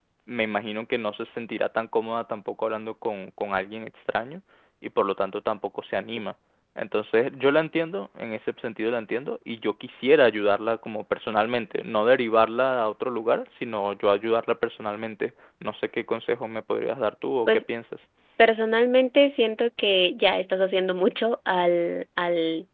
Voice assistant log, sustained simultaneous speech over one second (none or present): none